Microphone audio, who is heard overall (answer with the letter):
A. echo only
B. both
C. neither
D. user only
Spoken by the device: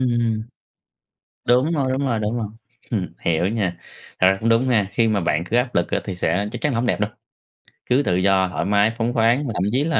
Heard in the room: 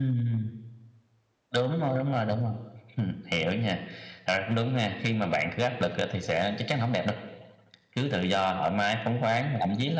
A